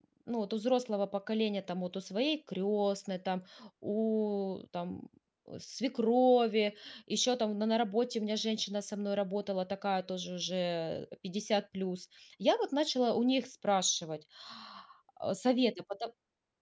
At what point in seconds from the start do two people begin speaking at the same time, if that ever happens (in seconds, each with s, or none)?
none